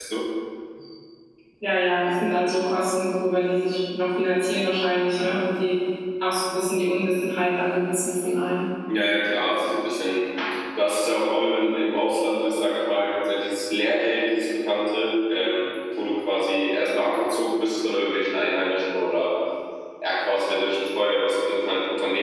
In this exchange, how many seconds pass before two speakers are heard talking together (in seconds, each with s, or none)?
none